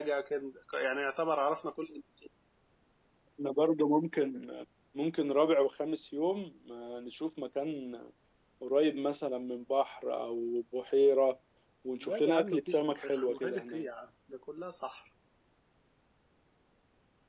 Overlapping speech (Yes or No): Yes